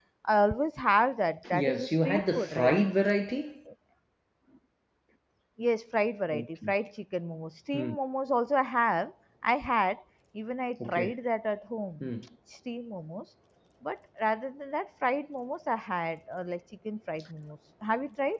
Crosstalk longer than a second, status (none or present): present